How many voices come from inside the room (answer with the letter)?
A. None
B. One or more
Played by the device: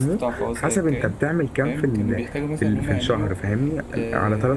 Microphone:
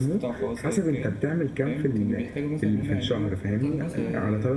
B